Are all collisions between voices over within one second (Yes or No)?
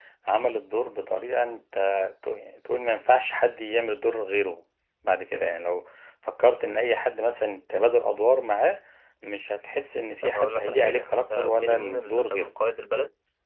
No